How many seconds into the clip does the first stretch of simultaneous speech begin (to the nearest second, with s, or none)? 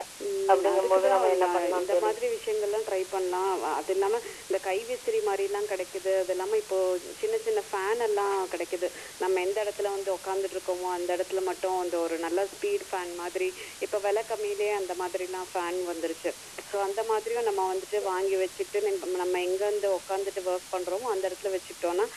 1 s